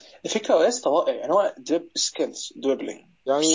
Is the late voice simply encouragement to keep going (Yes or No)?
No